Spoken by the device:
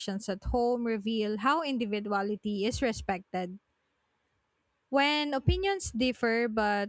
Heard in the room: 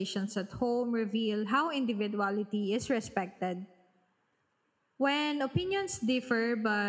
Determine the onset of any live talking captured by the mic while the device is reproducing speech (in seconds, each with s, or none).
none